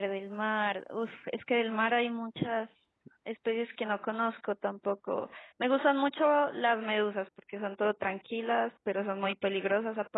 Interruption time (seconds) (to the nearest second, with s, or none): none